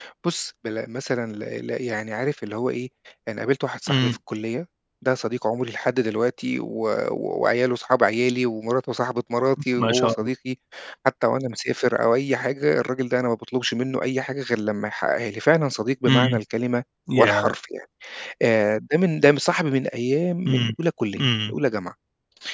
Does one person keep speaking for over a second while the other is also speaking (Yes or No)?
No